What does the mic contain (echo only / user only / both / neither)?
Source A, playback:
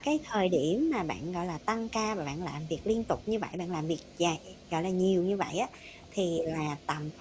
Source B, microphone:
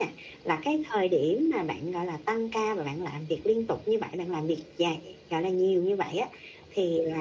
echo only